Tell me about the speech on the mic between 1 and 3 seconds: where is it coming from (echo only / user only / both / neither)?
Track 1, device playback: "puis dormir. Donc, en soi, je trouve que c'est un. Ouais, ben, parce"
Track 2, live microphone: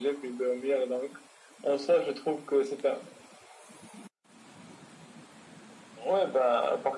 echo only